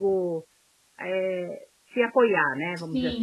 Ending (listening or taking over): taking over